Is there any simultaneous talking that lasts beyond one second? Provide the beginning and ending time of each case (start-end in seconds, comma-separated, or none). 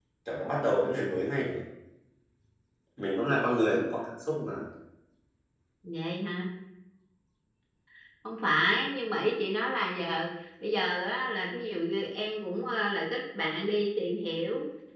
none